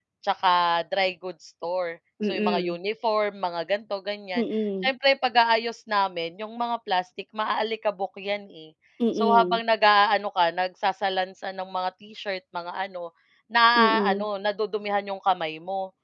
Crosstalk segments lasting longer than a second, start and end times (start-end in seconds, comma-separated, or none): none